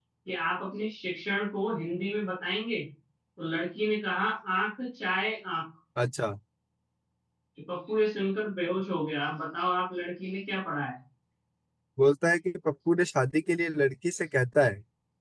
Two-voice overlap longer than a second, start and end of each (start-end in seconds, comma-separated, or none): none